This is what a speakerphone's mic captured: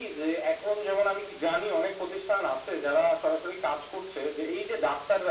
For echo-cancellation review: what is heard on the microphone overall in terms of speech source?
echo only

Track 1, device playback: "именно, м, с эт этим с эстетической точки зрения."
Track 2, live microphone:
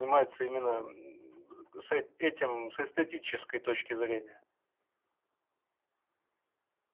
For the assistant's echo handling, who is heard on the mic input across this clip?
echo only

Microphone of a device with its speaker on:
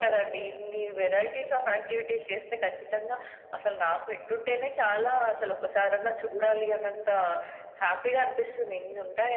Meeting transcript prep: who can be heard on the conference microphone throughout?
echo only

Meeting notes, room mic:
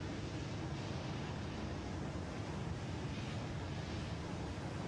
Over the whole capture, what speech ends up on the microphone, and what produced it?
neither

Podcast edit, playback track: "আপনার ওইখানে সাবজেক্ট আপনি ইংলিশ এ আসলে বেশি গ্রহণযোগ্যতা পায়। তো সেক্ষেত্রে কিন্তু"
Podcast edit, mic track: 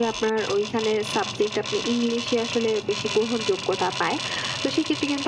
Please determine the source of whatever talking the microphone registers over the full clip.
echo only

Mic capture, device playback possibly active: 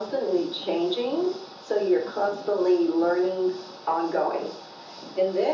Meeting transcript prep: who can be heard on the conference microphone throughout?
echo only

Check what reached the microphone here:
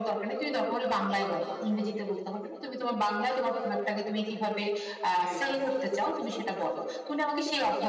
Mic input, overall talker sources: both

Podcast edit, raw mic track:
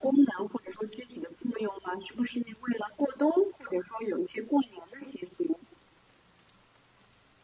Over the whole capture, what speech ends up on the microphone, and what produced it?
echo only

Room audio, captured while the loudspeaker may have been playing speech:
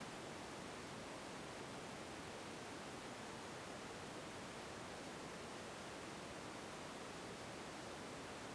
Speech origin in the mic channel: neither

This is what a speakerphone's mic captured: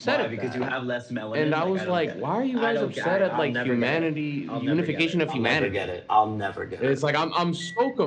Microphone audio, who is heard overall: both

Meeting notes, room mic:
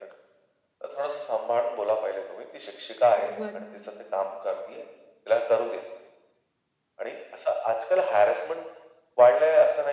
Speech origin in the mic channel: both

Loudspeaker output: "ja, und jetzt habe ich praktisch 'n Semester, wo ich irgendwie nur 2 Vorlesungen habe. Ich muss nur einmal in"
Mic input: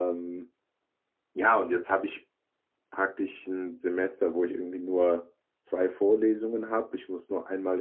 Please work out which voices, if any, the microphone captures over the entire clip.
echo only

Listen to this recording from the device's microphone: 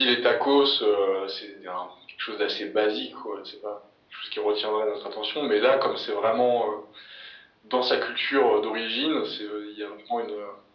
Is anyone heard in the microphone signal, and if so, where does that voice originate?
echo only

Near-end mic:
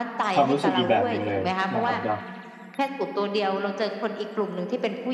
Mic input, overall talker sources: both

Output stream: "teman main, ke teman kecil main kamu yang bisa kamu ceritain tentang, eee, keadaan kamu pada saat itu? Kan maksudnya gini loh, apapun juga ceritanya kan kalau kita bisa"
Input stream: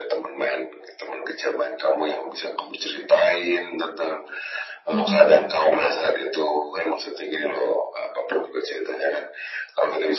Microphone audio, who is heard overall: both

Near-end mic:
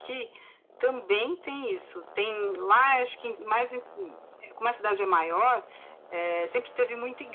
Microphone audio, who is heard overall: echo only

